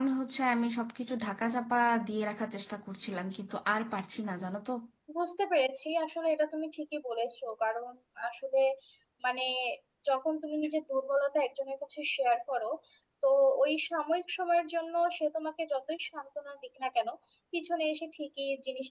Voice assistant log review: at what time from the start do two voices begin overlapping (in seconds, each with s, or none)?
none